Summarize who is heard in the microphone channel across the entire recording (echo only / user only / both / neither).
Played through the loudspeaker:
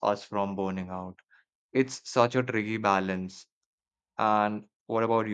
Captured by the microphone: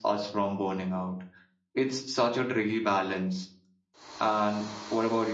echo only